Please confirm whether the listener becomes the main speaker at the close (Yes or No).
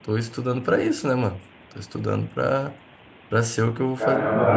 Yes